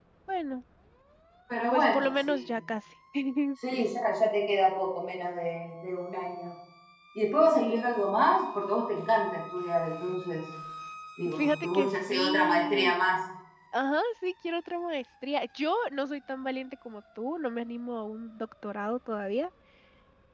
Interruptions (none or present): present